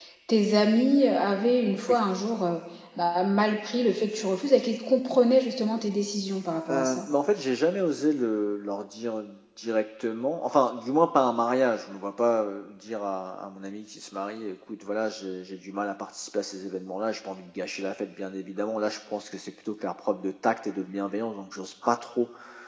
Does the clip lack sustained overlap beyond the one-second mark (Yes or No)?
Yes